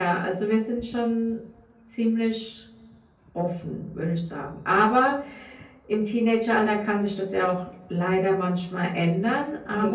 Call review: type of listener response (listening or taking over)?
listening